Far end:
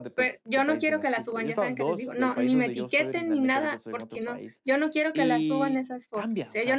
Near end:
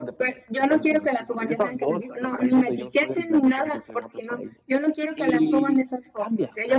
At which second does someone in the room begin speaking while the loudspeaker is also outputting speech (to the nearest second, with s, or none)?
none